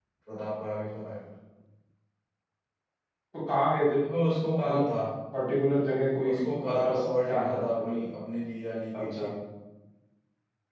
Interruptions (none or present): present